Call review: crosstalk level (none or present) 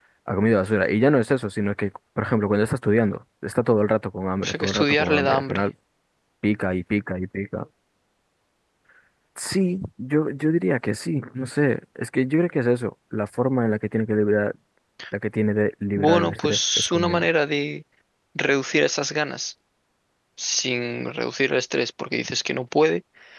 present